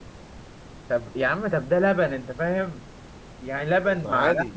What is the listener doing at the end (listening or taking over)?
listening